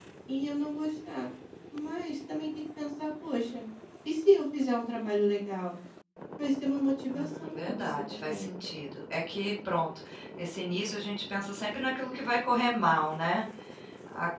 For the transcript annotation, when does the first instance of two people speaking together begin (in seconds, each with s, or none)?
7.1 s